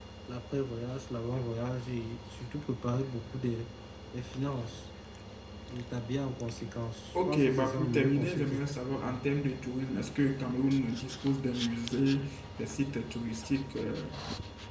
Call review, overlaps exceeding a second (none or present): present